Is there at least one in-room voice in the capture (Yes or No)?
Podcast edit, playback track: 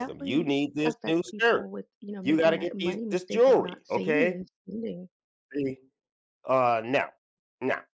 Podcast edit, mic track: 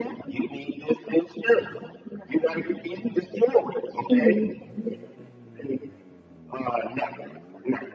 Yes